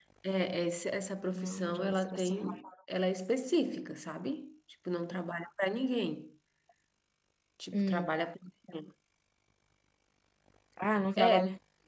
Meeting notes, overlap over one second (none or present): present